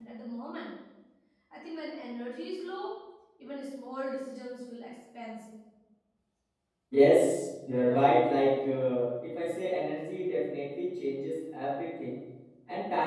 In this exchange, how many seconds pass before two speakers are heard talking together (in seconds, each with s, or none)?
none